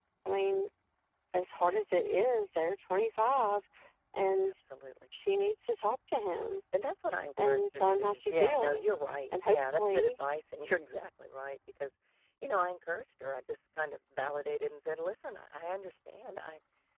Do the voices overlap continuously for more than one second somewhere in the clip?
Yes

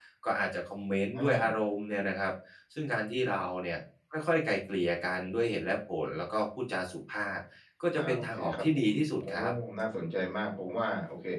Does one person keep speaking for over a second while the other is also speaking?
Yes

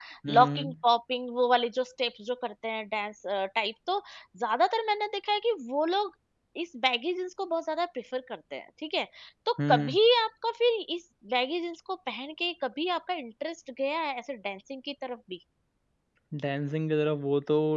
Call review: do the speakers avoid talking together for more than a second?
Yes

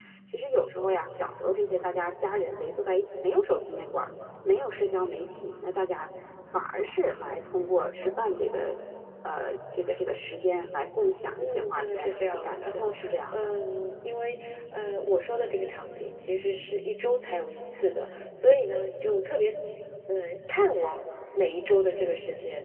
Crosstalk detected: Yes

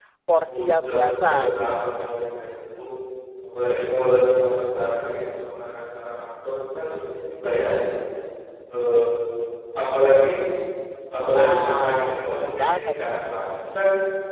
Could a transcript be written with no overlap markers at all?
No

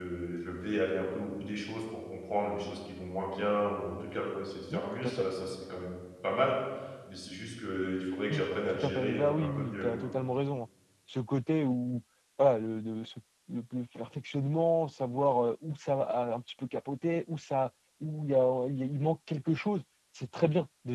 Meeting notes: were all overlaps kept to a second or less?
No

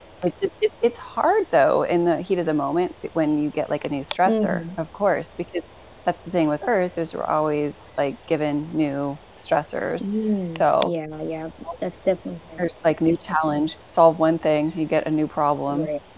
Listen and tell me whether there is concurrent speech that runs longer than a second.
No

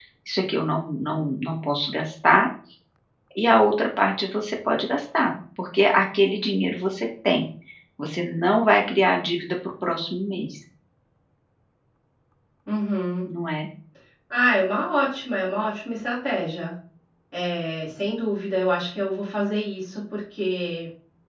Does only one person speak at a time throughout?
Yes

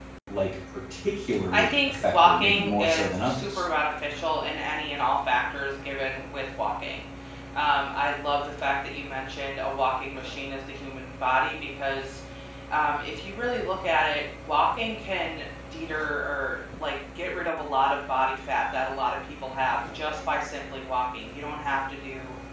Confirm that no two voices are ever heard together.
No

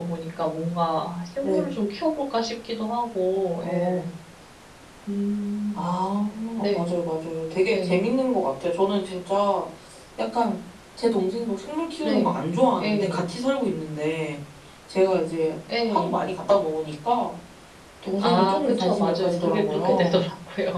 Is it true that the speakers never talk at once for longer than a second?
No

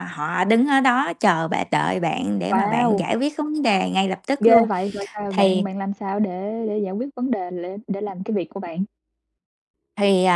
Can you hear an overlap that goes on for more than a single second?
No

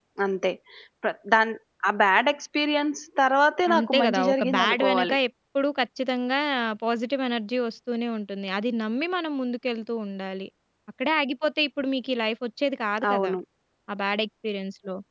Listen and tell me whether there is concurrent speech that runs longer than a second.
Yes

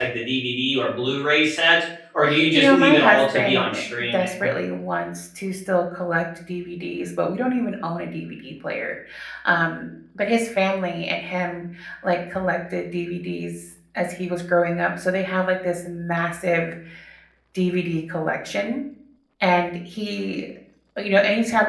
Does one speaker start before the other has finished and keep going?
Yes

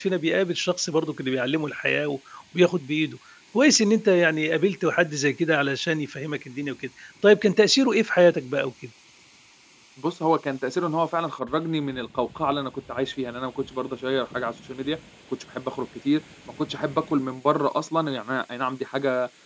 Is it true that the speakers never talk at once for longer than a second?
Yes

